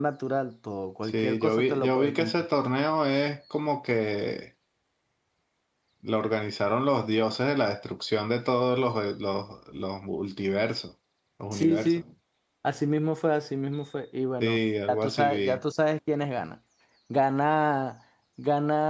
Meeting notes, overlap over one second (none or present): present